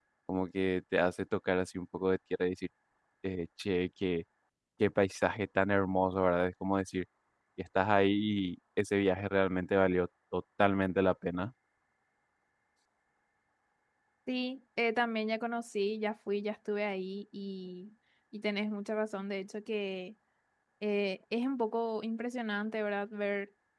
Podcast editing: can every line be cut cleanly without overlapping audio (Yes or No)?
Yes